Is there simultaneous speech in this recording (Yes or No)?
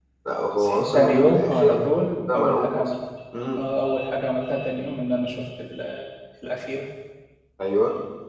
Yes